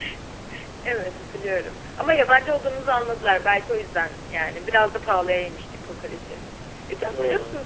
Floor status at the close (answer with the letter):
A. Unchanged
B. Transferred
A